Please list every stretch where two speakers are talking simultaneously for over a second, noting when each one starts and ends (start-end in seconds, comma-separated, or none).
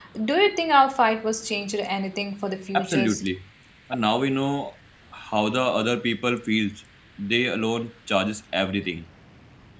none